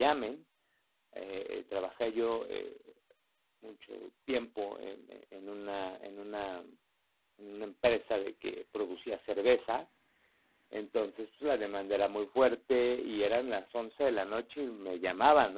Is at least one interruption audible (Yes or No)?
No